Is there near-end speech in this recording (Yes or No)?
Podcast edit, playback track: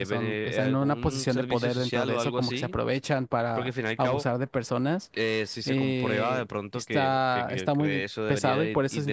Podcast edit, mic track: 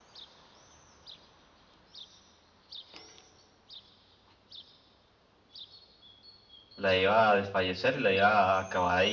Yes